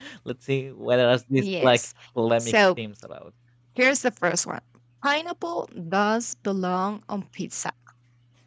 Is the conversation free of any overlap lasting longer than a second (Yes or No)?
Yes